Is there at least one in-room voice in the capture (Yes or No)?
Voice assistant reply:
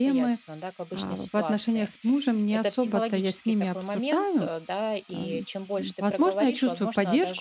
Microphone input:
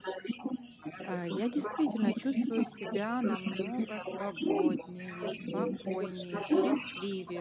Yes